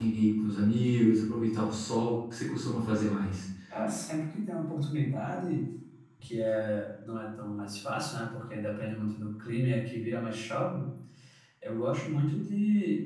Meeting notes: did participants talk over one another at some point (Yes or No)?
No